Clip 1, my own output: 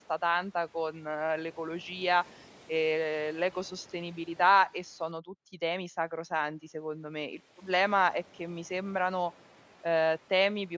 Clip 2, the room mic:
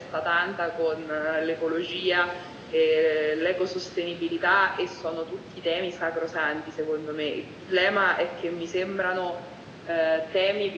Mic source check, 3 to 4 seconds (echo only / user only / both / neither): echo only